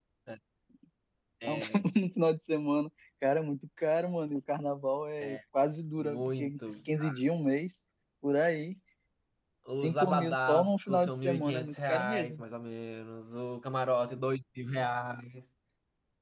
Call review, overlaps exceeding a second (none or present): present